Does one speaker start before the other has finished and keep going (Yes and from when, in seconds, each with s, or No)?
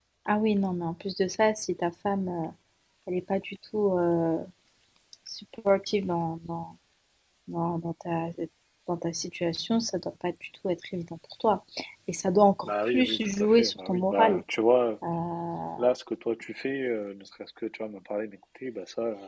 Yes, from 12.7 s